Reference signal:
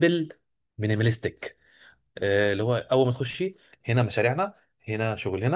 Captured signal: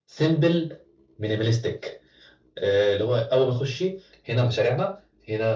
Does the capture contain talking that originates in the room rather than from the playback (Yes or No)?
No